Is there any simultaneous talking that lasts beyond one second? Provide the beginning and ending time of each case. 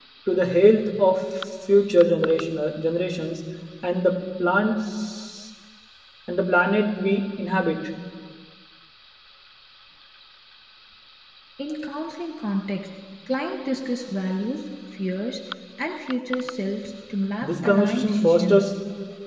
17.4-18.7

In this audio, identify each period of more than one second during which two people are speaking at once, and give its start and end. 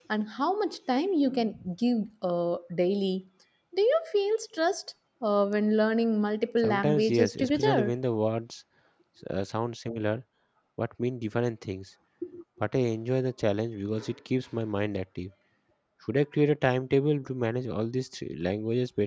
6.6-7.9

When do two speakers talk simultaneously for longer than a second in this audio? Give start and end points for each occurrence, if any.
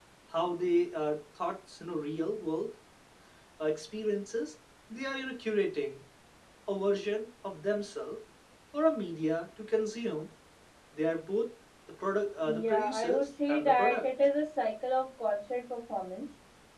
12.5-14.0

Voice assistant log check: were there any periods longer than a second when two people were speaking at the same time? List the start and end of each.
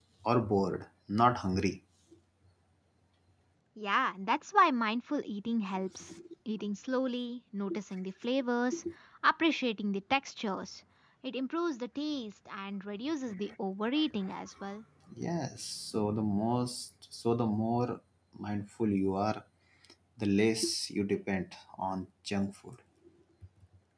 none

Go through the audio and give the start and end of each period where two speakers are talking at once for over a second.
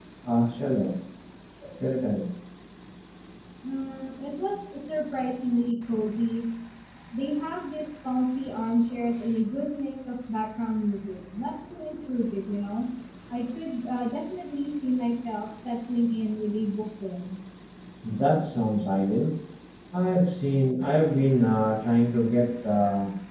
none

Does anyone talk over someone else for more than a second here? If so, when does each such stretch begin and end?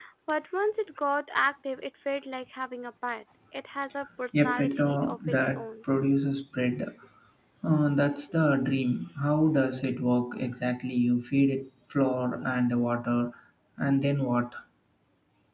4.3-5.6

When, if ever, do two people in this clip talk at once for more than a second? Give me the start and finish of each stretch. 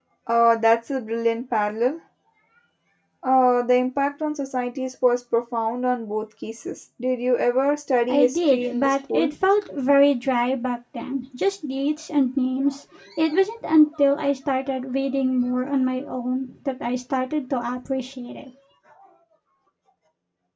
8.1-9.3

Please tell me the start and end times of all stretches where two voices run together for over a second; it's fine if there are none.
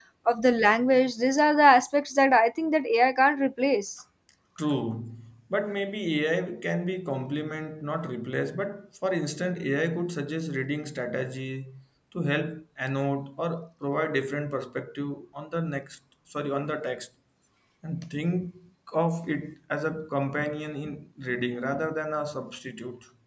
none

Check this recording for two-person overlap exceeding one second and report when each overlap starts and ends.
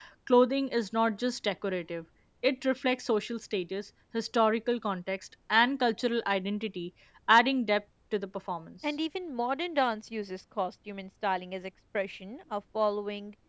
none

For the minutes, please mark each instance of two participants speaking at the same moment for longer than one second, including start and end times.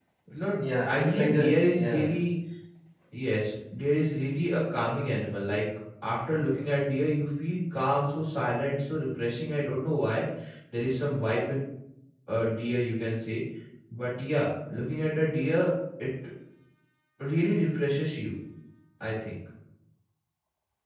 0.6-2.1

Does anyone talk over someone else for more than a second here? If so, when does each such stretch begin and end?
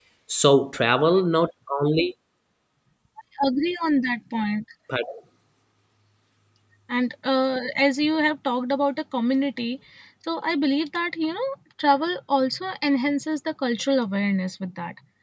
none

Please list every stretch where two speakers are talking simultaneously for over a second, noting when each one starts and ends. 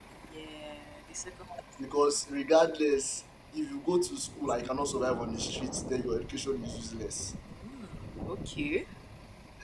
none

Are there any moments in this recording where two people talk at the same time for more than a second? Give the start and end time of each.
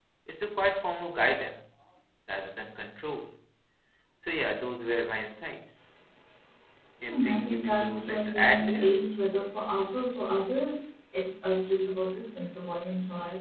7.1-8.9

